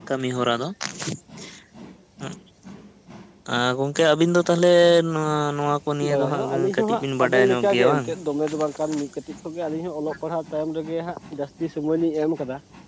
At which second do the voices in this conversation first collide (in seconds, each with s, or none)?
6.1 s